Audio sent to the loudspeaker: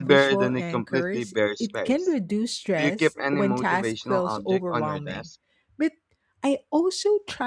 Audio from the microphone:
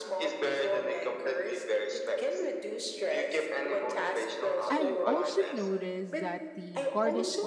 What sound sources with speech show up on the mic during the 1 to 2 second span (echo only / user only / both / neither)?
echo only